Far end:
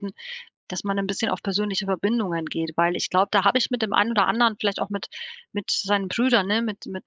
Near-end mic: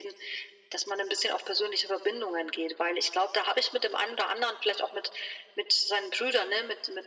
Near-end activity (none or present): none